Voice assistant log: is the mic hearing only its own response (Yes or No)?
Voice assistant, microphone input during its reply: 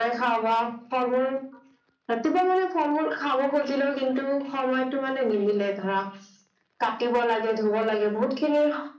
Yes